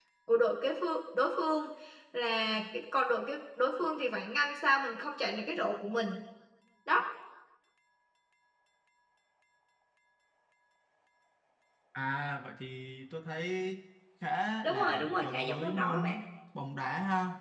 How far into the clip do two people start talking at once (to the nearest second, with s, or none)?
15 s